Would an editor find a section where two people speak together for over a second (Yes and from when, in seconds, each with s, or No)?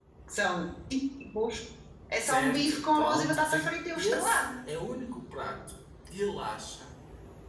Yes, from 2.3 s